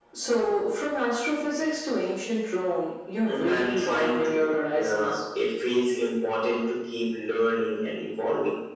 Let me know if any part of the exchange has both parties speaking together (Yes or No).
Yes